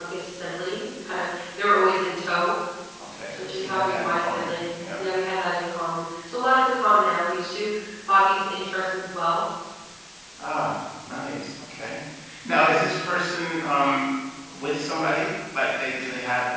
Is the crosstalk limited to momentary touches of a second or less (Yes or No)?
No